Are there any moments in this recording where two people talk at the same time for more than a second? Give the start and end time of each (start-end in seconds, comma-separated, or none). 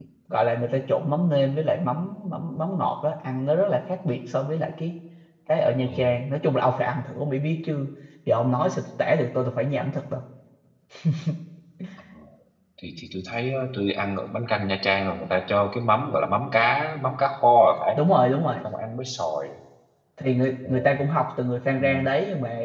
none